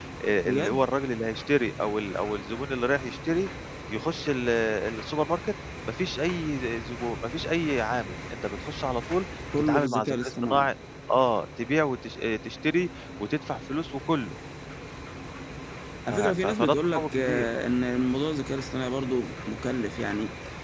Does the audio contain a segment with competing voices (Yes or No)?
Yes